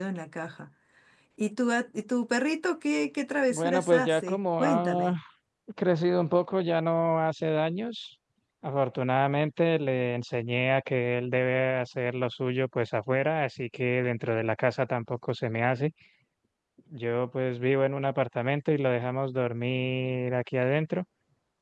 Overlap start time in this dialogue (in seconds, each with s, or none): 3.5 s